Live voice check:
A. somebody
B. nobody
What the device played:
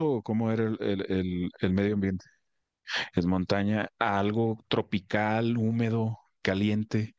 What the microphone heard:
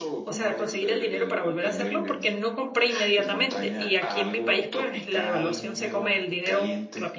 A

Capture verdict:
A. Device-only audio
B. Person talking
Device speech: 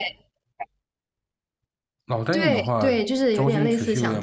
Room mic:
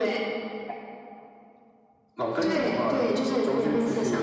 A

